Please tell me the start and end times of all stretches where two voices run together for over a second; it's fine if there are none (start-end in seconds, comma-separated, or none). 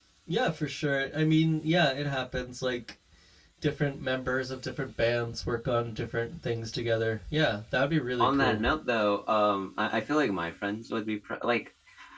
none